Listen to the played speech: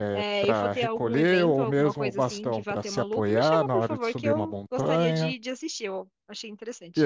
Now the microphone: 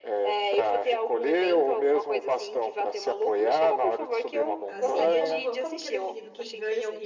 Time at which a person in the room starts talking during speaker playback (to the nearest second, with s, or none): 5 s